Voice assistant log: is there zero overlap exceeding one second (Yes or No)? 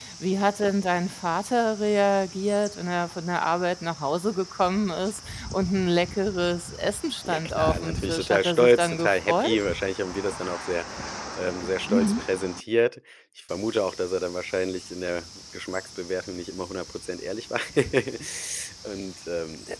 No